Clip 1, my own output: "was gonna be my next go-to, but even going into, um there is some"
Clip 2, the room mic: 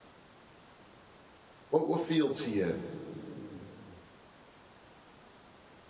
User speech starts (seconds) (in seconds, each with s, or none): 1.7 s